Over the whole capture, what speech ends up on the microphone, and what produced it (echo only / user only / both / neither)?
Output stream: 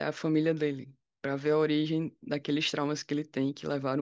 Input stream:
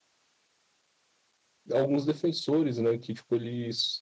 user only